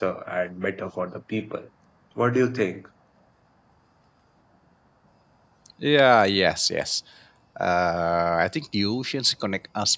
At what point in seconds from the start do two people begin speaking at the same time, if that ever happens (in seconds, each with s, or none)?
none